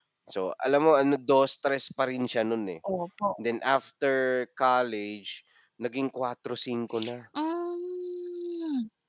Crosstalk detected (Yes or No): No